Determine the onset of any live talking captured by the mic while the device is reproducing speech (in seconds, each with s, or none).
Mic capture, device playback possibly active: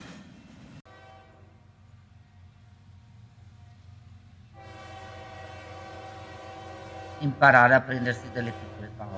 7.2 s